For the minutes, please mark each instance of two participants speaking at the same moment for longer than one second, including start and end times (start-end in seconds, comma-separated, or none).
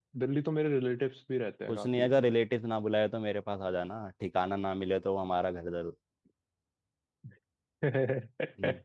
none